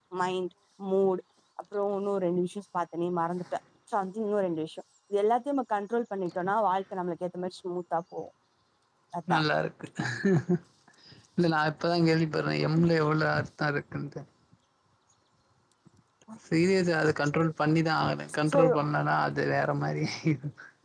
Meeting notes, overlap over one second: none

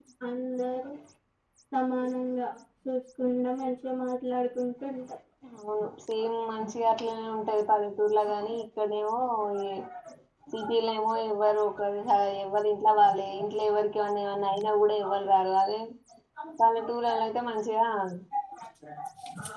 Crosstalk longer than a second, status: none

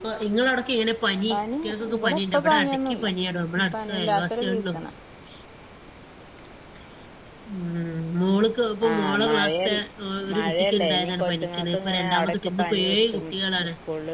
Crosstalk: present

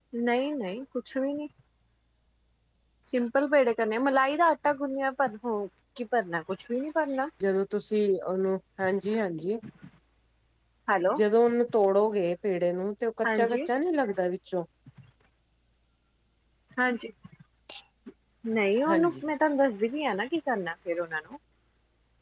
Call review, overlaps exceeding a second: none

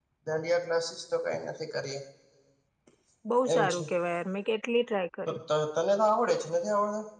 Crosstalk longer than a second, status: none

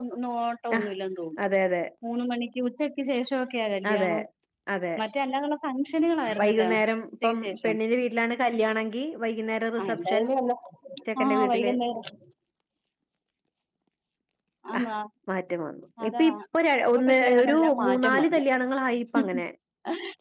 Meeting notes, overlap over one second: present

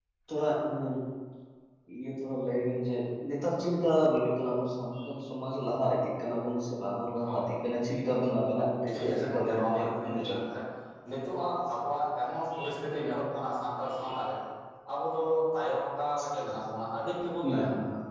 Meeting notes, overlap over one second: present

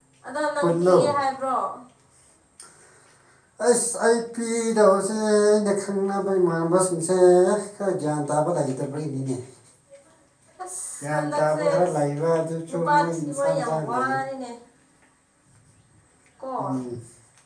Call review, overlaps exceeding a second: present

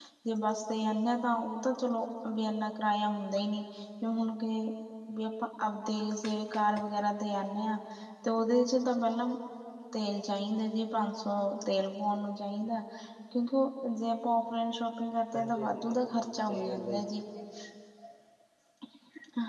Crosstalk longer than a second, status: present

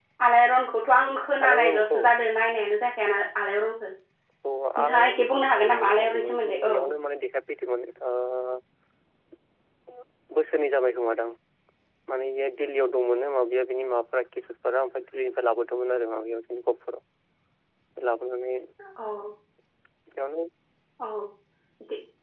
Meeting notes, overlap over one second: present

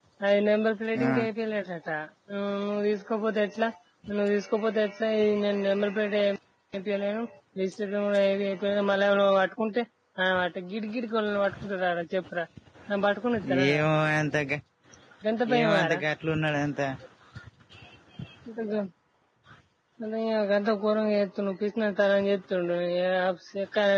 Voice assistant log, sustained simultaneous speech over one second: none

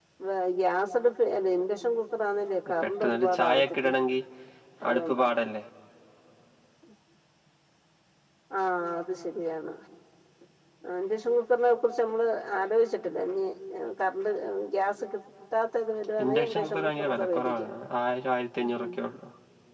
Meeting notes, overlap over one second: present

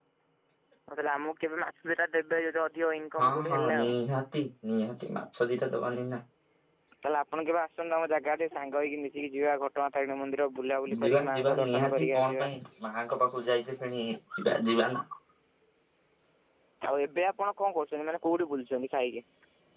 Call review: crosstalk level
present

